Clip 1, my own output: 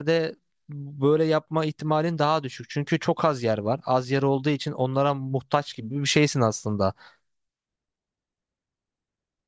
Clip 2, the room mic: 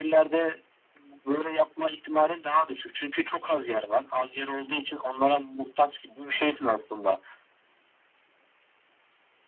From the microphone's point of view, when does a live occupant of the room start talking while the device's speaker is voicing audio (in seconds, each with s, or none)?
none